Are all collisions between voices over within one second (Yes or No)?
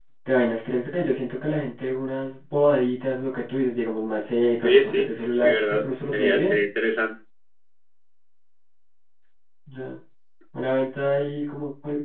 No